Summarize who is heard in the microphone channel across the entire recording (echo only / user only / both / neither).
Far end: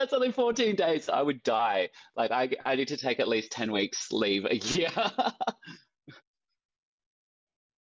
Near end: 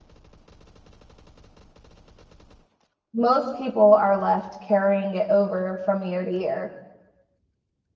user only